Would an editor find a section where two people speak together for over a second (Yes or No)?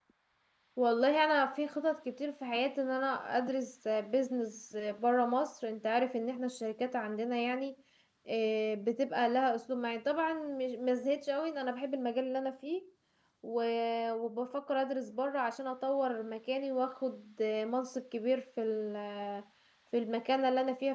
No